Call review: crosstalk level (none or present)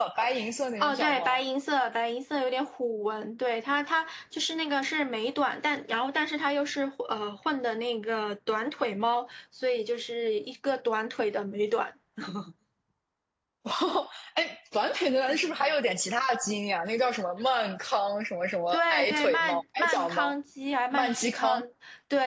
present